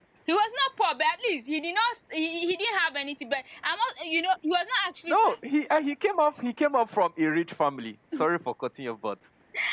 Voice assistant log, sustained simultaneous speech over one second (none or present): none